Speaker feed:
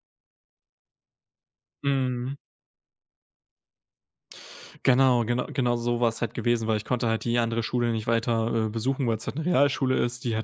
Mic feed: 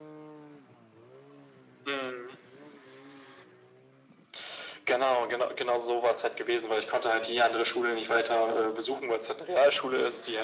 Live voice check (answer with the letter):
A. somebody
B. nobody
B